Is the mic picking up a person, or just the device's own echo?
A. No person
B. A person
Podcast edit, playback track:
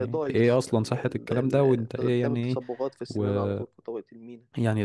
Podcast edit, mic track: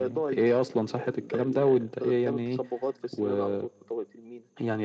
A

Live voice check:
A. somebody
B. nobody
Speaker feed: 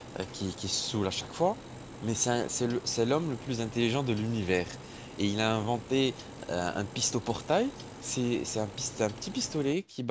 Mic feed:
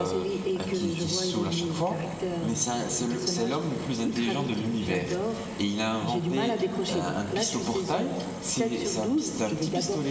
A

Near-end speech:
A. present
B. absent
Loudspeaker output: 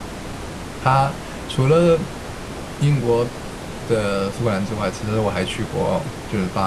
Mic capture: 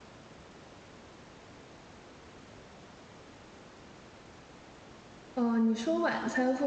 A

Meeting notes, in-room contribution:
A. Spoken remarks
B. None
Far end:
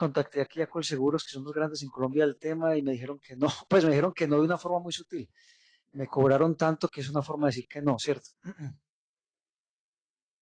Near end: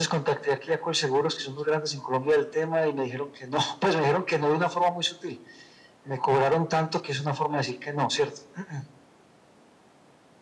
B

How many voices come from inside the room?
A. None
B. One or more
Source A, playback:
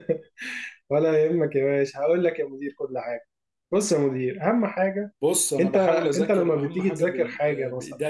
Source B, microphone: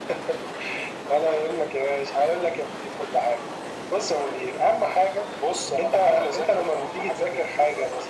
A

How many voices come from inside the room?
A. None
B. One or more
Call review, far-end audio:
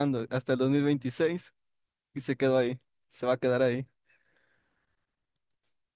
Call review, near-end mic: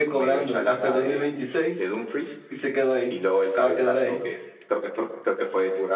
B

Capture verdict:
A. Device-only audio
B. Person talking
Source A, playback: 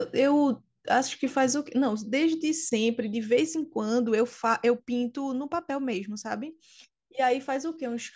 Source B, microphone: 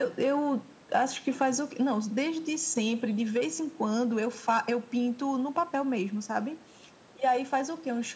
A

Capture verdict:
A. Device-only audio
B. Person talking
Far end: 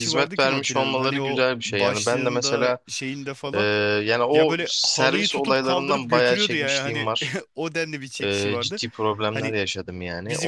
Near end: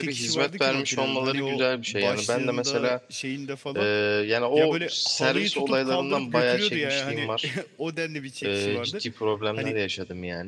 A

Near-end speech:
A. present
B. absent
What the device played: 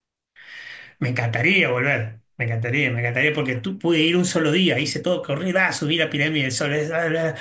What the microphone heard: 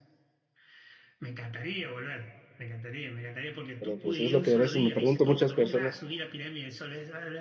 A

